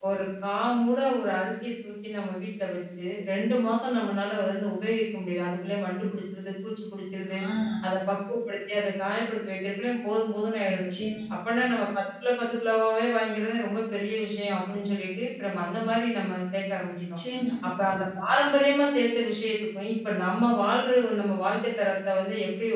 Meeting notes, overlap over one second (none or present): none